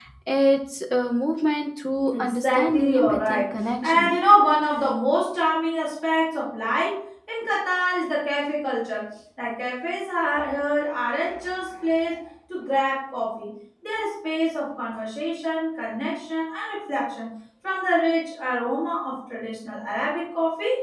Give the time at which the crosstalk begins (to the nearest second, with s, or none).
2 s